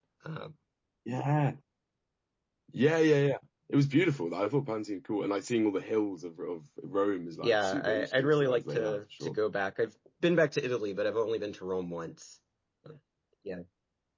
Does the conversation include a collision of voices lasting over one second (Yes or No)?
Yes